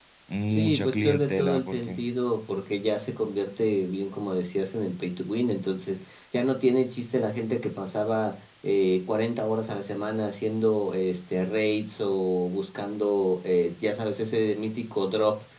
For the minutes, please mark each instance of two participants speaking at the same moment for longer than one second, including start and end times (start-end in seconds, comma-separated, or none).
0.5-2.0